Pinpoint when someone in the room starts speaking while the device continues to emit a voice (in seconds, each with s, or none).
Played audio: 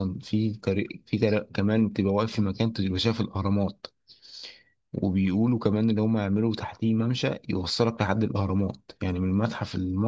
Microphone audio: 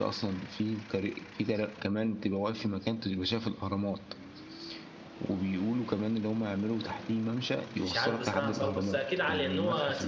7.7 s